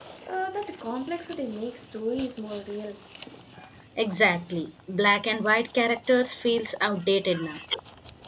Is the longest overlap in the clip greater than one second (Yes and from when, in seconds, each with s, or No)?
No